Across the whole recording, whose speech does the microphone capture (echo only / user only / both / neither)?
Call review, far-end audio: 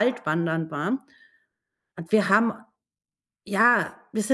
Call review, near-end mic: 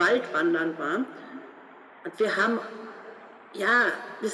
echo only